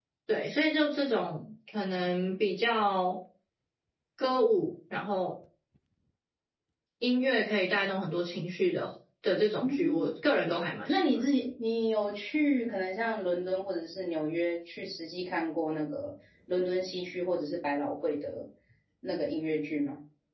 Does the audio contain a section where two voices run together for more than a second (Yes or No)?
No